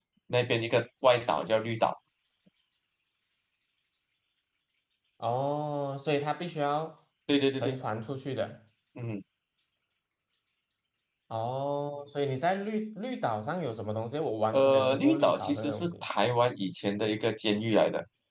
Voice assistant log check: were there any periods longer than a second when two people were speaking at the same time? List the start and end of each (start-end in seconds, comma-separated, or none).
14.5-16.0